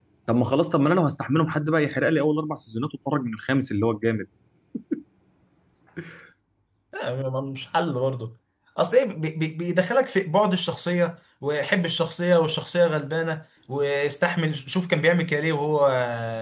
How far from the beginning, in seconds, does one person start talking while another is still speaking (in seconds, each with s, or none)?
none